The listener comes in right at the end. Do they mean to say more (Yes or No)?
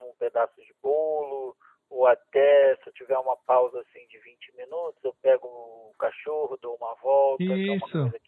No